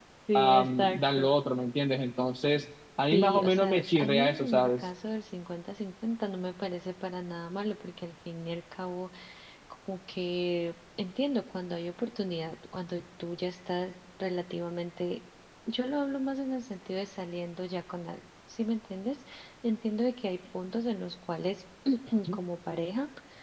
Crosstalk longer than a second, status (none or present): present